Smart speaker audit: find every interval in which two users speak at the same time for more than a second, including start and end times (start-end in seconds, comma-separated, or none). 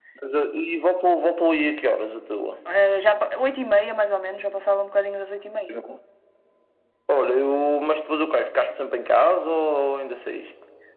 none